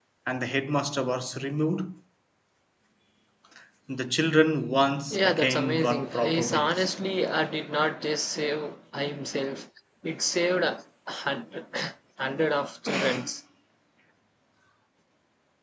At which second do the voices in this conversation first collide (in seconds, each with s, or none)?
5.1 s